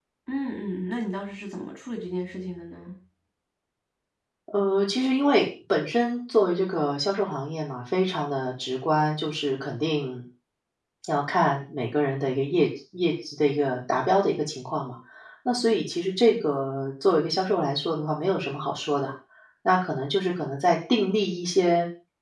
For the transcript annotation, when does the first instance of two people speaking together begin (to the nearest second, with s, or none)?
none